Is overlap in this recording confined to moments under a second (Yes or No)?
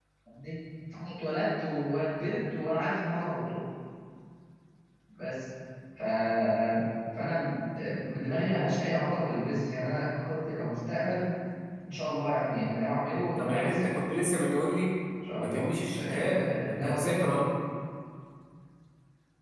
No